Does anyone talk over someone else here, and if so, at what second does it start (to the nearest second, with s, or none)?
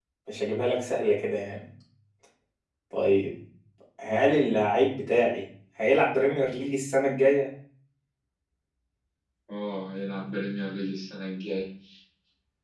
none